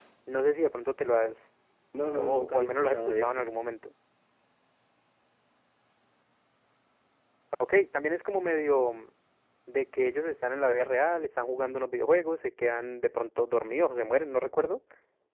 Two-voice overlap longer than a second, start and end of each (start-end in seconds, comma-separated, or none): 2.1-3.5